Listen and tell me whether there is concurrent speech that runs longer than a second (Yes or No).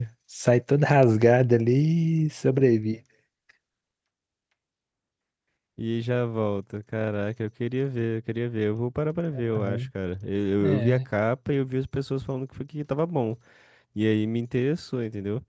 No